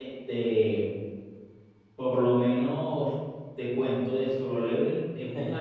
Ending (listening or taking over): listening